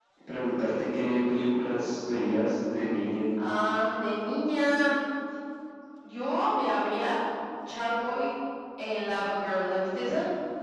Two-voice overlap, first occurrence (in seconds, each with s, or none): none